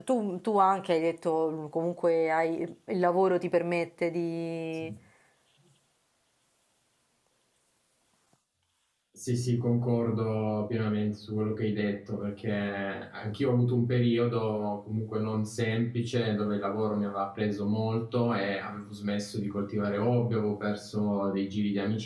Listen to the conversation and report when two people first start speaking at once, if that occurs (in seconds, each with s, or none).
none